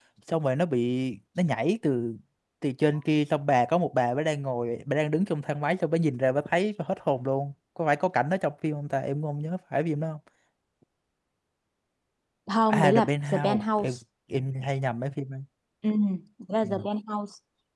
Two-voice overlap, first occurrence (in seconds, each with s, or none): 12.7 s